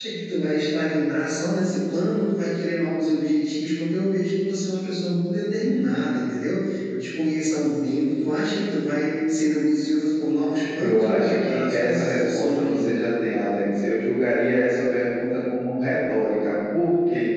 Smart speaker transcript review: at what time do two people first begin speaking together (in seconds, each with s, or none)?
10.8 s